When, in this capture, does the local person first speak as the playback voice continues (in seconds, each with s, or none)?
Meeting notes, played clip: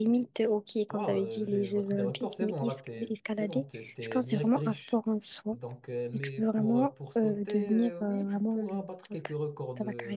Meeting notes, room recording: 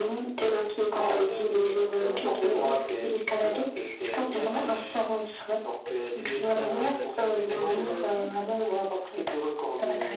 4.3 s